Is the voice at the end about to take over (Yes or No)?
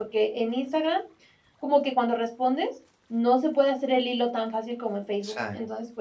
No